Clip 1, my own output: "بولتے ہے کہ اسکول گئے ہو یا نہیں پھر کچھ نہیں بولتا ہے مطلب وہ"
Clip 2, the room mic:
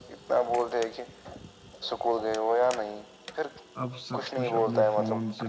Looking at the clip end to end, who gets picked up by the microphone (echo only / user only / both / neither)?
both